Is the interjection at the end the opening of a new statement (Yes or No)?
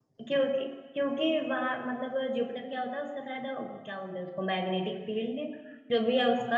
No